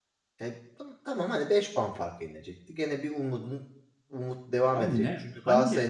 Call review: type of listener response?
taking over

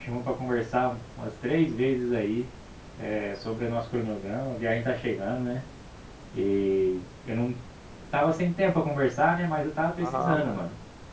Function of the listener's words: taking over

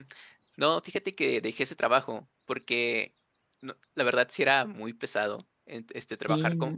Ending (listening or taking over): listening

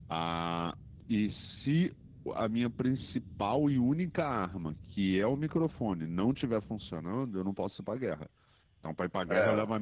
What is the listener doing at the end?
listening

